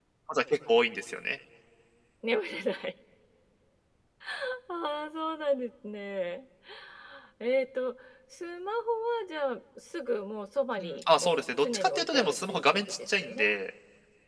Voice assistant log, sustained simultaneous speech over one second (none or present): present